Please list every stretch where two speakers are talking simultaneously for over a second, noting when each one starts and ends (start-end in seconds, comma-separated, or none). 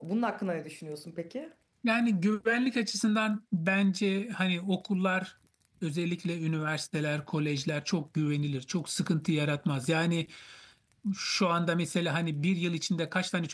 none